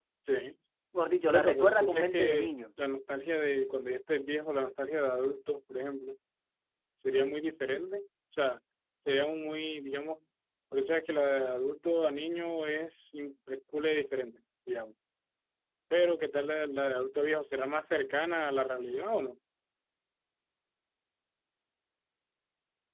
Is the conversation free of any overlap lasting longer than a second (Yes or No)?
No